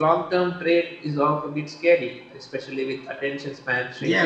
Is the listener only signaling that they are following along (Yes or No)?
No